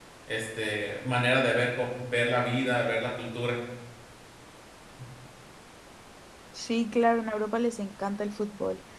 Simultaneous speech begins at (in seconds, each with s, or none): none